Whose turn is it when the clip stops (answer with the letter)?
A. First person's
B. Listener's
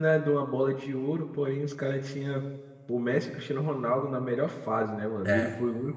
A